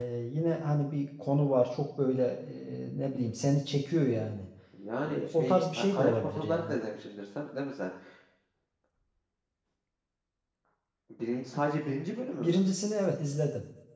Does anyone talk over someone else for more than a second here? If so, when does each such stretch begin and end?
5.1-6.8

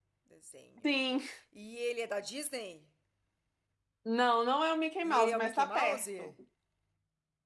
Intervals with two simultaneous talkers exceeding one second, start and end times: 5.0-6.3

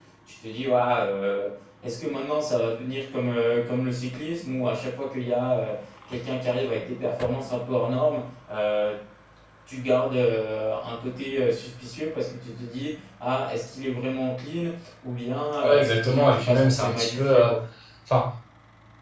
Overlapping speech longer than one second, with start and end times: 15.6-17.5

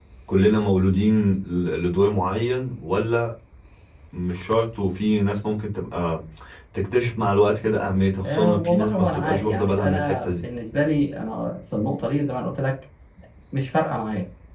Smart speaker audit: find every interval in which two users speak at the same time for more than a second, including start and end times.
8.2-10.4

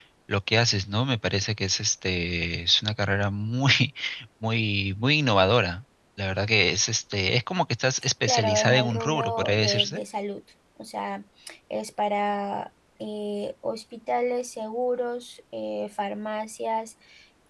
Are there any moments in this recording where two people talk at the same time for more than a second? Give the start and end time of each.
8.2-10.0

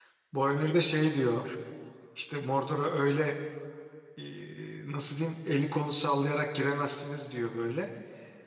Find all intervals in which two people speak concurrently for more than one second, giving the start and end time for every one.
none

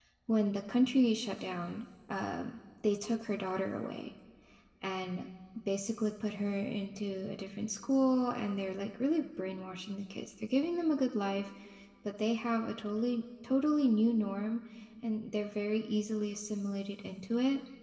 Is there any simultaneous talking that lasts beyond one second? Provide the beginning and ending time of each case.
none

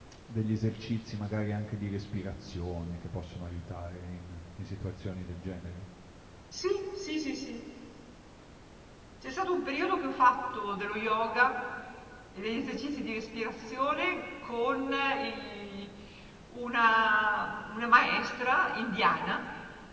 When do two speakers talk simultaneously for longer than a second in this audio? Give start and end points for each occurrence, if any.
none

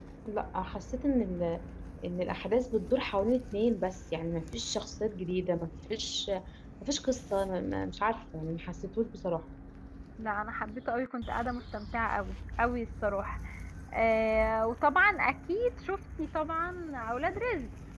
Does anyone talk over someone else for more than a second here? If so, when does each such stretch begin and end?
none

